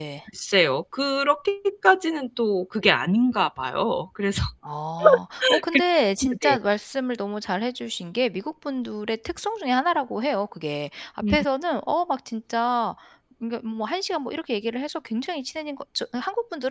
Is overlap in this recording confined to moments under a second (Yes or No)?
Yes